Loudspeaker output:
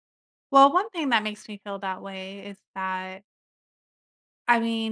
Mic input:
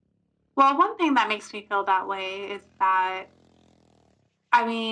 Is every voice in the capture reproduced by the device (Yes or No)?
Yes